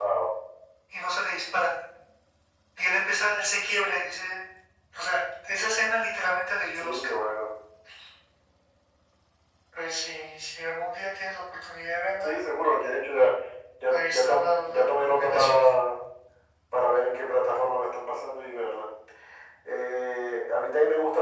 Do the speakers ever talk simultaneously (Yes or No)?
Yes